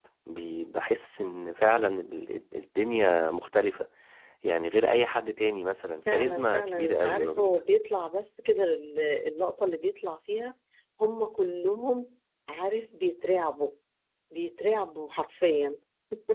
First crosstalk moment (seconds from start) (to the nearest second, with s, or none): 6 s